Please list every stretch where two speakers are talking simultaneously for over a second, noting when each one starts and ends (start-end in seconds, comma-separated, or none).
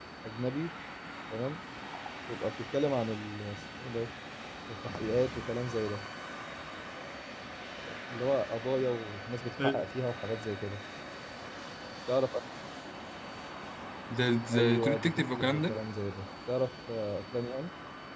14.5-15.8